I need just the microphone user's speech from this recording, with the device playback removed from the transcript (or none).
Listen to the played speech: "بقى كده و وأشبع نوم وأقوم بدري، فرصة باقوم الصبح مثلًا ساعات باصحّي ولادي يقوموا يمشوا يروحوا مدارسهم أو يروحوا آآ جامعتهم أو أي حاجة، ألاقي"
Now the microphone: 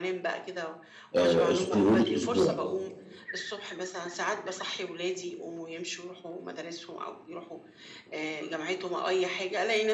آآ أسب لمدة أسبوع